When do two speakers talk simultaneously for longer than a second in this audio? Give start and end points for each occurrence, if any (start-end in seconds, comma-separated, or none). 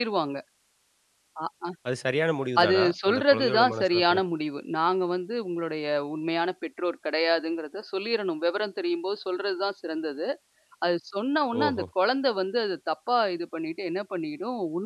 2.6-4.2